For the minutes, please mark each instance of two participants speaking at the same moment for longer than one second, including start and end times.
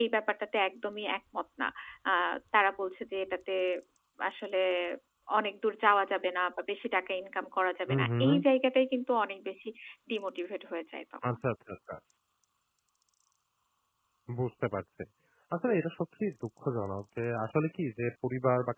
none

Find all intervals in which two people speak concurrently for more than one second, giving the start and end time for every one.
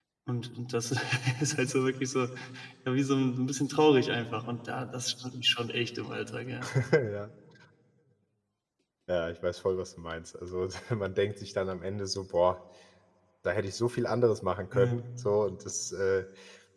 none

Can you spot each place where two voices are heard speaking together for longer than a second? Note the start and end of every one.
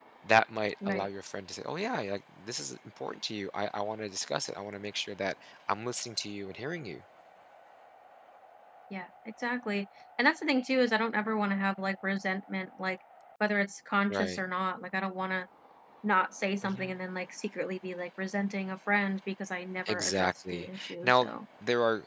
19.9-21.3

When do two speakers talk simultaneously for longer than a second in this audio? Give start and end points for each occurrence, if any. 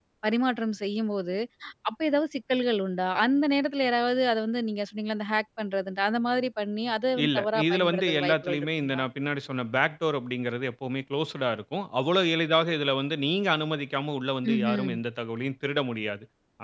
7.2-9.0

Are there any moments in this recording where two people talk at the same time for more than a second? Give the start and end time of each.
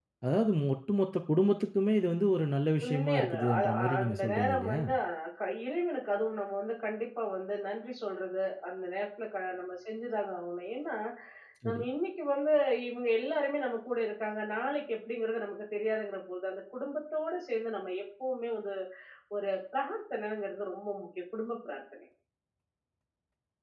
2.8-4.8

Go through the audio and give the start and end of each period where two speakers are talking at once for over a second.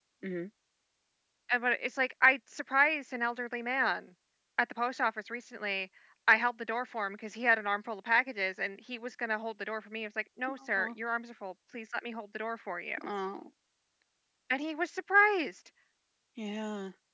none

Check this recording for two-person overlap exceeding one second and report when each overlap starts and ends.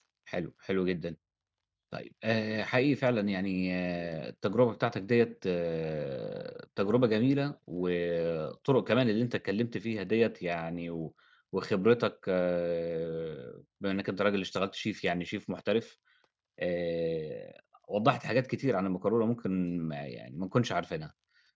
none

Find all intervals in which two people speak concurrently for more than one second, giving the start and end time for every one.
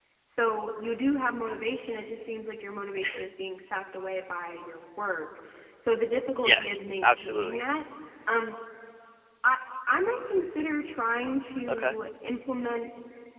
6.4-7.7

